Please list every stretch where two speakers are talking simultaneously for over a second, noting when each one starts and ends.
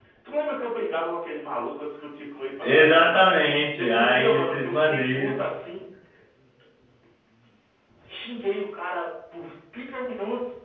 3.8-5.4

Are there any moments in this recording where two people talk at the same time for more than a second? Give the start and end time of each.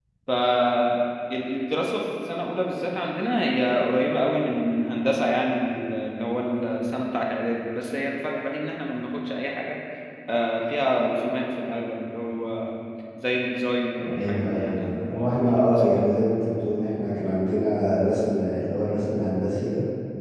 14.1-16.2

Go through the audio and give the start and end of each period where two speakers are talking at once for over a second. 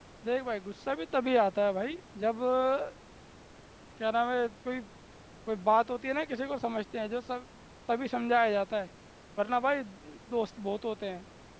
none

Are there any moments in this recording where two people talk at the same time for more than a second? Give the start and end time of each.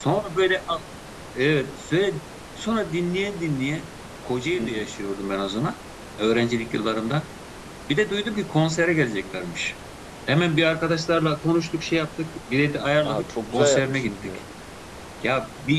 13.0-14.4

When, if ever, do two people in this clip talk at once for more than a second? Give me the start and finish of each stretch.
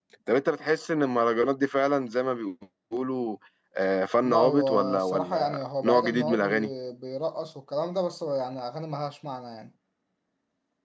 4.2-6.5

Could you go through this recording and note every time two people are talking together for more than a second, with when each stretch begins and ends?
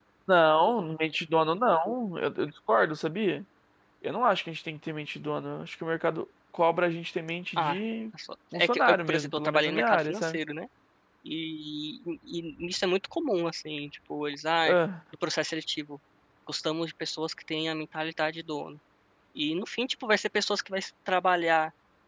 8.5-10.4

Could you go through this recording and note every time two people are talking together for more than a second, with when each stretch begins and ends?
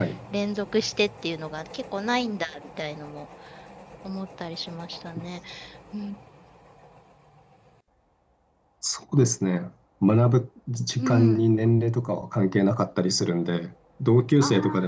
none

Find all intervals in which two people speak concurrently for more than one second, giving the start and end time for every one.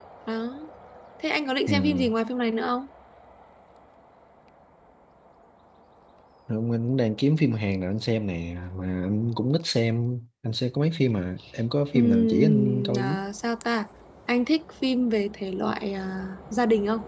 11.9-13.2

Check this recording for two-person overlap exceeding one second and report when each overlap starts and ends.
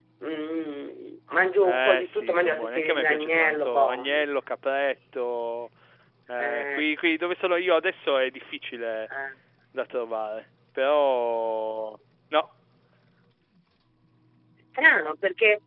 1.6-4.2

